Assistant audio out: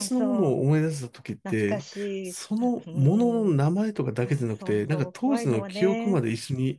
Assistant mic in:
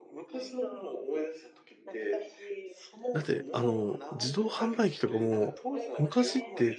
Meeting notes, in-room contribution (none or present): present